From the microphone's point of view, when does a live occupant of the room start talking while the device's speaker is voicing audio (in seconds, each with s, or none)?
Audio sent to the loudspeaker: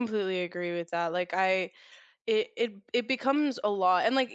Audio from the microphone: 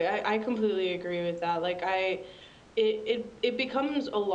none